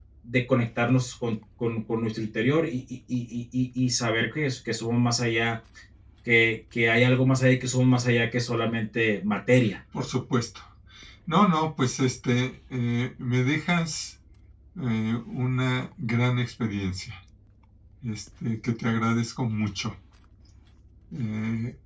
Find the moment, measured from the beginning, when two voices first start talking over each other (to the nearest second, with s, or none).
none